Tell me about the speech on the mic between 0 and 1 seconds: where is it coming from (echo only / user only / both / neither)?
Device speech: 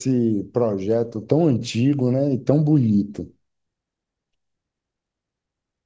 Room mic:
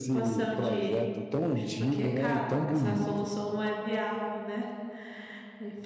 both